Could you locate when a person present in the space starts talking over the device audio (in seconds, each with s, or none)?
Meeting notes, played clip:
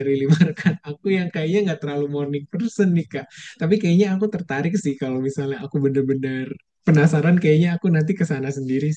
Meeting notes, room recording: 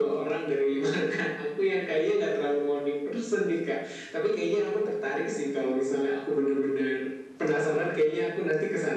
none